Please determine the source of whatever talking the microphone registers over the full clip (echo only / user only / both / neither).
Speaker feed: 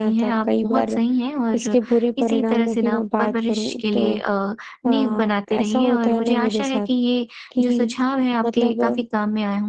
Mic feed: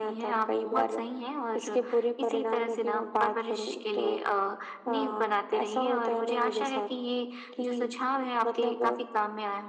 echo only